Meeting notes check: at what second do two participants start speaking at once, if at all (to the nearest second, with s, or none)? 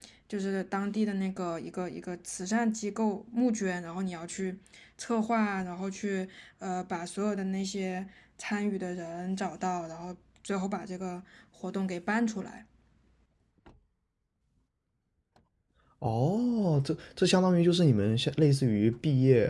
none